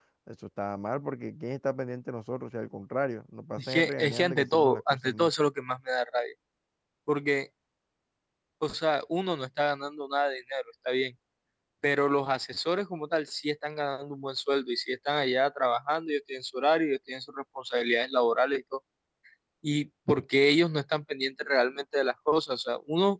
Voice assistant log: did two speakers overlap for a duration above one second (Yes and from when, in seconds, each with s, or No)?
Yes, from 3.6 s